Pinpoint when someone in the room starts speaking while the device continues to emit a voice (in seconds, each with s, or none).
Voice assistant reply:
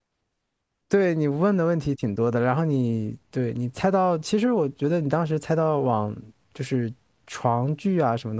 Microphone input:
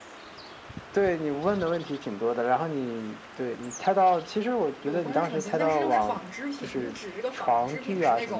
4.8 s